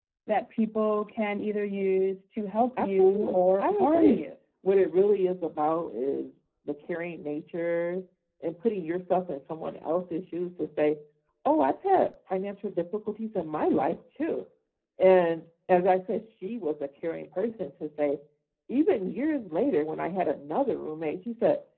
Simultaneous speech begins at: 2.8 s

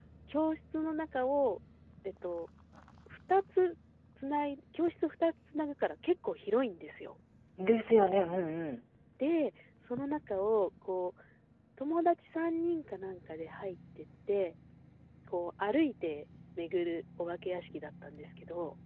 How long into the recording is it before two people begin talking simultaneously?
none

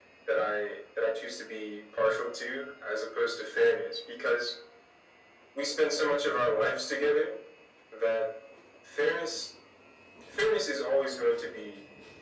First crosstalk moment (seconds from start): none

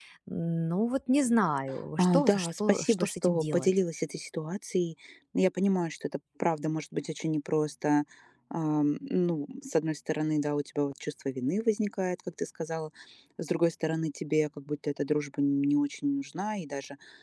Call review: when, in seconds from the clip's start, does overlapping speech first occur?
2.0 s

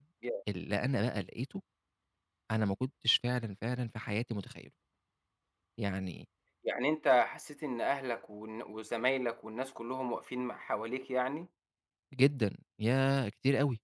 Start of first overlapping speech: none

